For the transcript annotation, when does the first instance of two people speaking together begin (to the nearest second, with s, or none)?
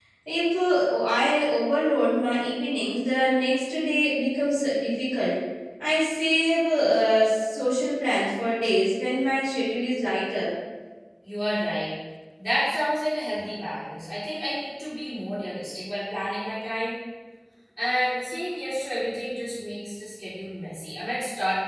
none